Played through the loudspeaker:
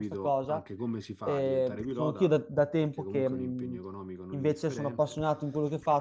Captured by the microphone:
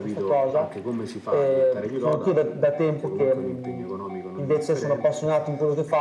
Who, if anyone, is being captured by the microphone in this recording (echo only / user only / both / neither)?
echo only